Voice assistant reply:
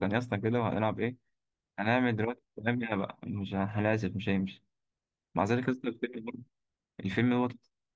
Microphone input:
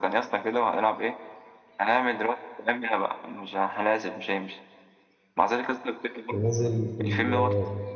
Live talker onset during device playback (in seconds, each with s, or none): 6.3 s